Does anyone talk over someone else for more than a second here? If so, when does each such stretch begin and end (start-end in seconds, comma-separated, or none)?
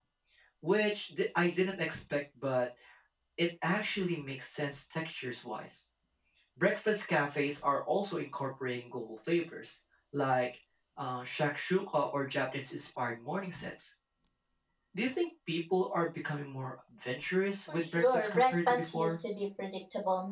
17.7-19.1